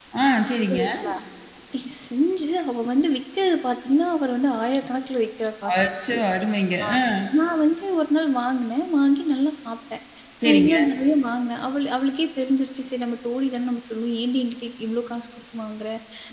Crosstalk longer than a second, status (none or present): none